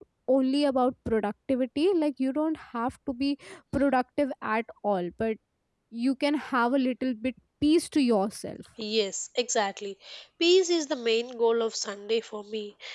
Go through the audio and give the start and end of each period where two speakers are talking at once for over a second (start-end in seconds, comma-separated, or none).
none